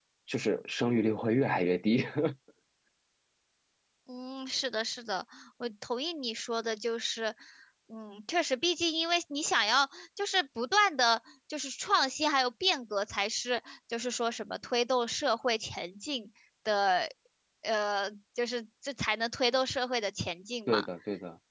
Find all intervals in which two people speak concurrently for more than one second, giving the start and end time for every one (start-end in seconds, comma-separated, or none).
none